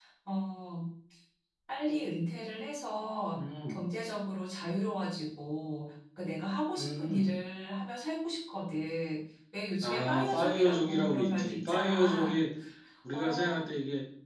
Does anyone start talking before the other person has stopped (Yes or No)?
Yes